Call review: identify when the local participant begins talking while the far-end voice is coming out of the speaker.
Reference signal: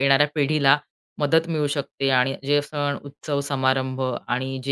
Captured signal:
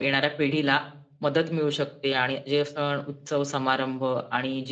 none

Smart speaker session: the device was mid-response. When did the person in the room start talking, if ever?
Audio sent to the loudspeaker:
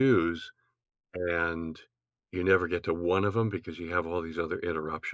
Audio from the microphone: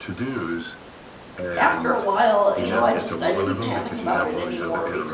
1.6 s

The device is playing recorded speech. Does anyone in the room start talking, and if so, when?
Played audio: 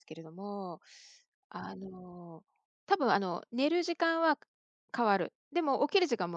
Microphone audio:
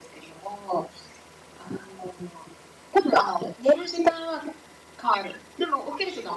none

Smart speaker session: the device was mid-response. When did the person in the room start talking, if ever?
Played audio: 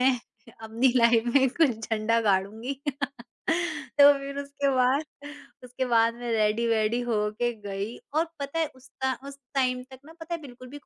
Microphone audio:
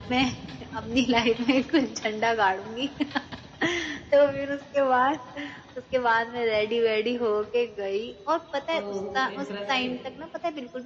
8.8 s

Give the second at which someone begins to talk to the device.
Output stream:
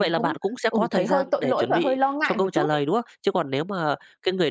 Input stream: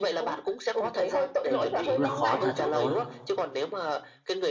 1.5 s

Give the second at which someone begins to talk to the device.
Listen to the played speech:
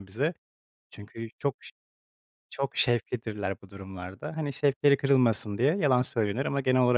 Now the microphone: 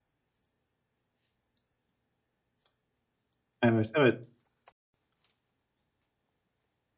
3.6 s

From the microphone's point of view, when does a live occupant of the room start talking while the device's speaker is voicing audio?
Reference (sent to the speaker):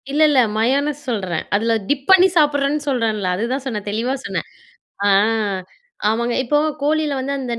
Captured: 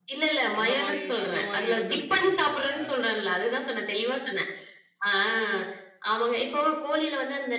0.6 s

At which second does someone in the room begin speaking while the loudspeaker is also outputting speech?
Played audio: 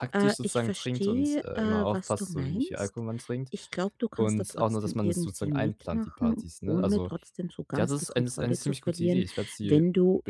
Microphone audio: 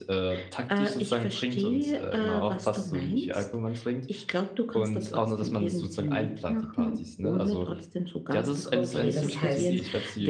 8.7 s

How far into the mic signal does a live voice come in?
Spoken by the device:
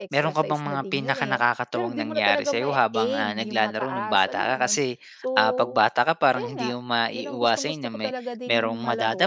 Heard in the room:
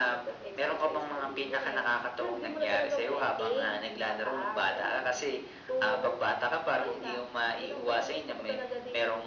none

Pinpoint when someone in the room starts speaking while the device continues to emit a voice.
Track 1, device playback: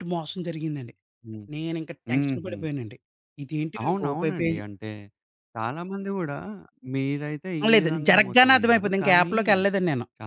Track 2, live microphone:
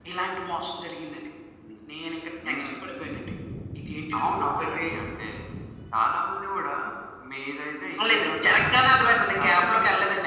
none

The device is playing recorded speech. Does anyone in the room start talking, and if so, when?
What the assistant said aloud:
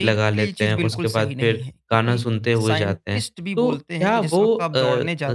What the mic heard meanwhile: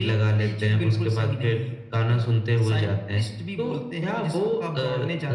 none

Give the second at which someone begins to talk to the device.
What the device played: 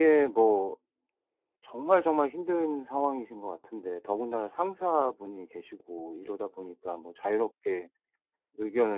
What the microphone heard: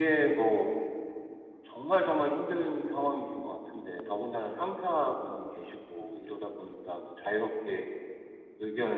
none

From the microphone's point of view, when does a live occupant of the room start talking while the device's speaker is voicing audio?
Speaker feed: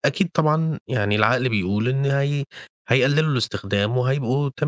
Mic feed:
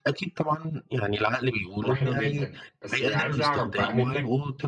1.8 s

